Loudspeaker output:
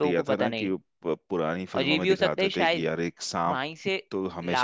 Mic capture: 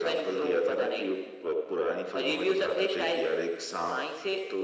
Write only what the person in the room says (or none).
none